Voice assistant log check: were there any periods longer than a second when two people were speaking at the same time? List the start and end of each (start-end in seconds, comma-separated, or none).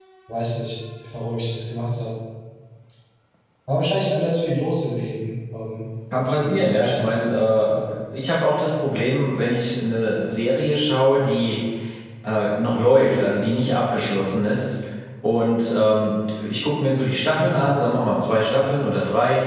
6.3-7.7